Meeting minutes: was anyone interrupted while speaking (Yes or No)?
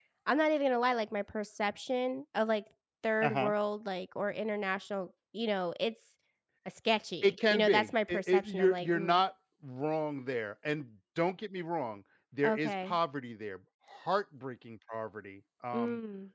Yes